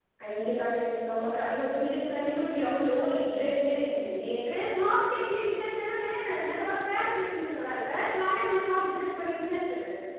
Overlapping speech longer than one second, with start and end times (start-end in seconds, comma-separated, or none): none